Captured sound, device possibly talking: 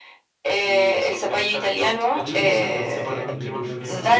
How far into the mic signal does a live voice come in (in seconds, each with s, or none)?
2.2 s